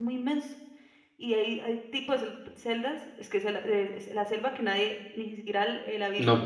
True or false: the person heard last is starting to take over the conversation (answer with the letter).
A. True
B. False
A